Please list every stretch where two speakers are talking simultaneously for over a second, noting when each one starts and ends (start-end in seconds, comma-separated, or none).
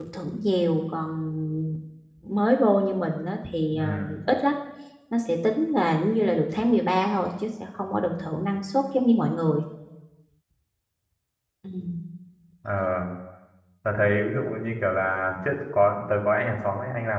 none